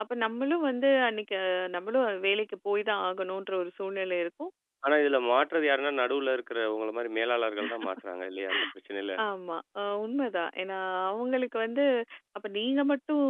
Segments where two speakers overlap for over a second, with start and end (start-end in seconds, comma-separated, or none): none